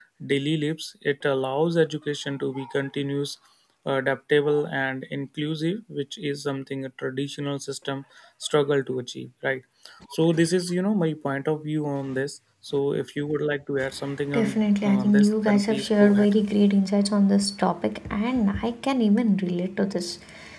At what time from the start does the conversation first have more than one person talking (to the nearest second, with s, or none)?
14 s